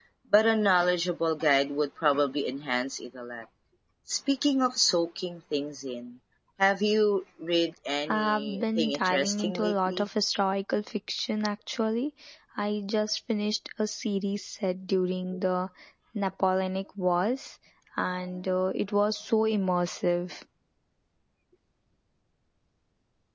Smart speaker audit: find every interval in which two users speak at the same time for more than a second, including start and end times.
8.1-10.1

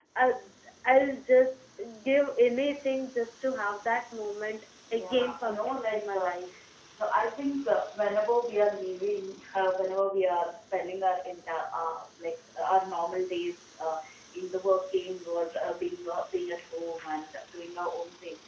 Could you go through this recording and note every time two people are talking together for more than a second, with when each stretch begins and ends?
4.9-6.3

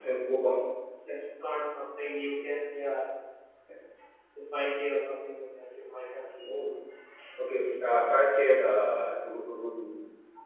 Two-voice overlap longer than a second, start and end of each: none

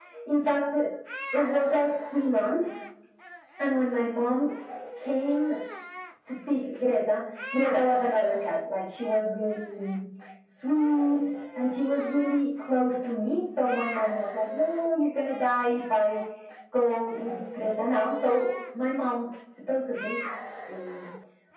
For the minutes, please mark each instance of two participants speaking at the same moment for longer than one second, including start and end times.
none

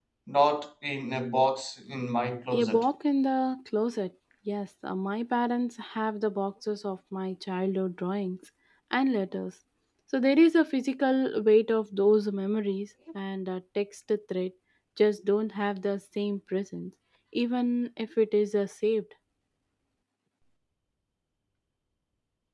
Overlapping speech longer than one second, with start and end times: none

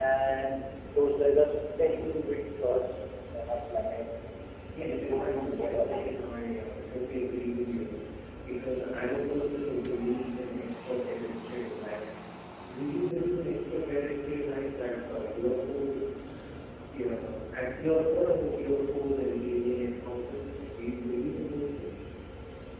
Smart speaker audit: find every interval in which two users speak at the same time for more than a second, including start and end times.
4.8-6.1

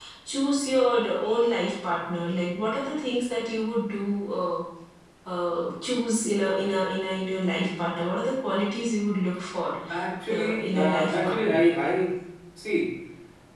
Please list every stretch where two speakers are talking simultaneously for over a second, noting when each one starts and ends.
10.3-11.6

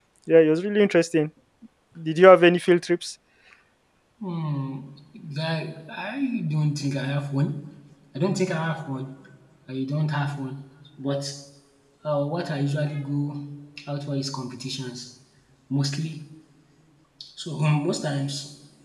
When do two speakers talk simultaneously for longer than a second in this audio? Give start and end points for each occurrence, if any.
none

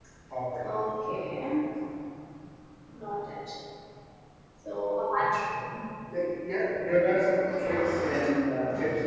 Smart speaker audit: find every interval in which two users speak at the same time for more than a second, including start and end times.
none

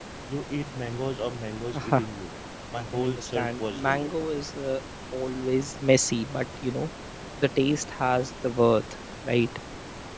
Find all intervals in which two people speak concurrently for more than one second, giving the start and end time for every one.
2.7-4.1

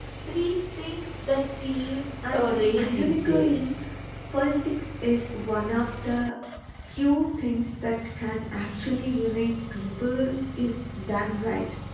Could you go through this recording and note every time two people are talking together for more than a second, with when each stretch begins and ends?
2.3-3.7

